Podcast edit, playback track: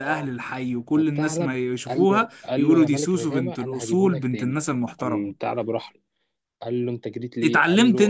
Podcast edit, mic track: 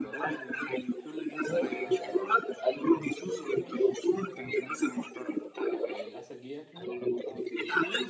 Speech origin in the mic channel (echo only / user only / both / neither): both